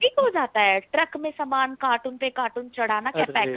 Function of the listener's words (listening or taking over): listening